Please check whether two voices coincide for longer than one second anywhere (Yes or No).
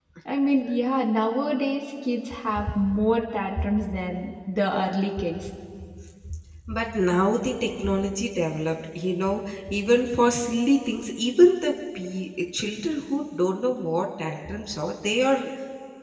No